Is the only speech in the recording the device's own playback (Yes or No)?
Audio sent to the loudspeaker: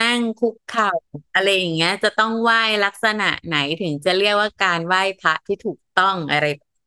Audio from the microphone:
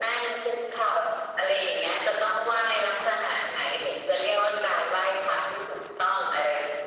Yes